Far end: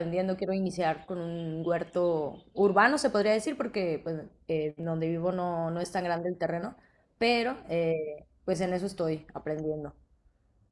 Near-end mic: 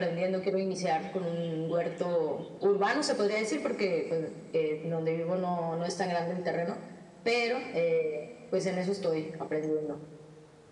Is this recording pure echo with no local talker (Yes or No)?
Yes